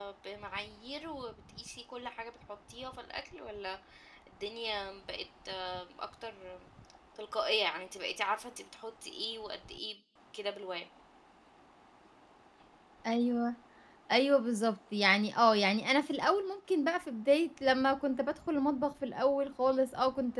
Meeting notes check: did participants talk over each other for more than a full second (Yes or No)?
No